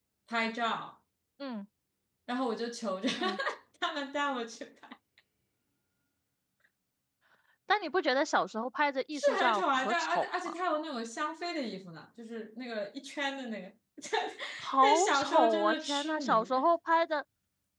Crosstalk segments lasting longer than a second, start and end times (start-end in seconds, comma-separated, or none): 9.1-10.6, 14.8-16.5